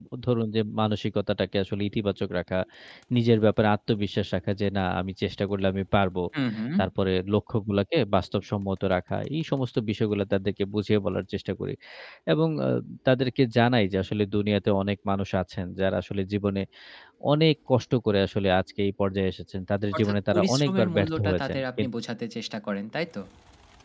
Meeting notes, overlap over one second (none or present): present